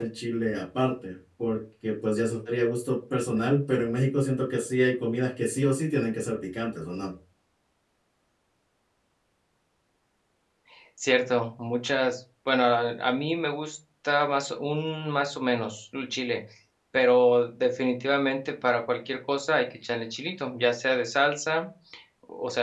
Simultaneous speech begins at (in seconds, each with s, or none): none